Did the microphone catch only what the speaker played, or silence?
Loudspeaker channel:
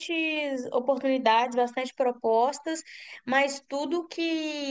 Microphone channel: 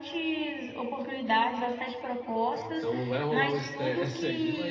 No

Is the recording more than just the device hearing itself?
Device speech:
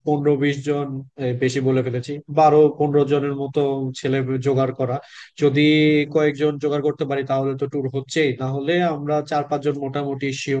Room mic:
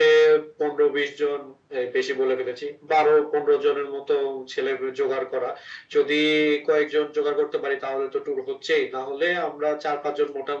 No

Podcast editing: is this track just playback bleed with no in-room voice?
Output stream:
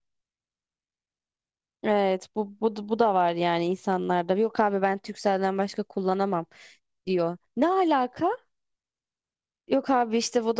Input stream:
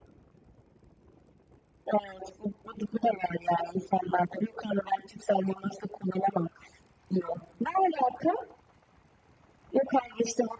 Yes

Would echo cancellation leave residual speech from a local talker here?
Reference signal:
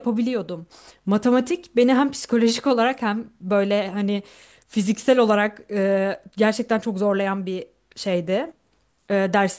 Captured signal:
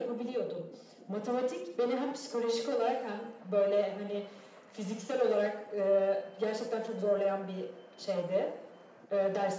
No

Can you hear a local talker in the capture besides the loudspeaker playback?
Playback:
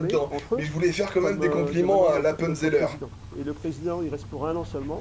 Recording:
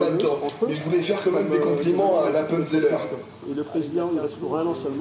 Yes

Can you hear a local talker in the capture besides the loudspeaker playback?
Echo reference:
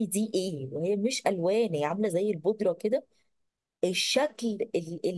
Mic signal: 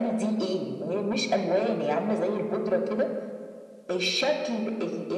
No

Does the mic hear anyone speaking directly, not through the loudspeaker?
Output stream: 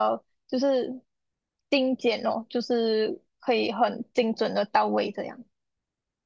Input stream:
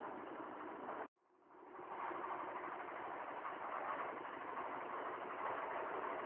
No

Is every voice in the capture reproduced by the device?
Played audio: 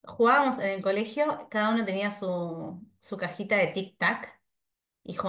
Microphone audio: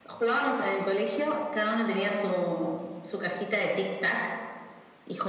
Yes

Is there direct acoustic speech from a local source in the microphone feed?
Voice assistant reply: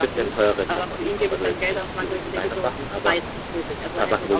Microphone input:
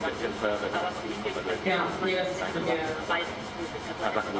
Yes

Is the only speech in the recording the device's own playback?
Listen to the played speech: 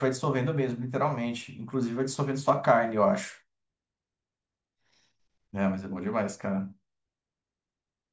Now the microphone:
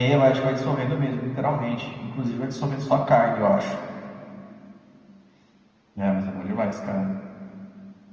Yes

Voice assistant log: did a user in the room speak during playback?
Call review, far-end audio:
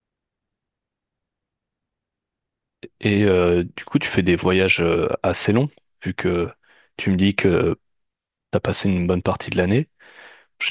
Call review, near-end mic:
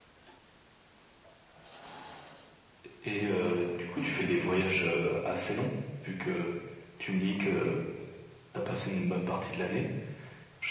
No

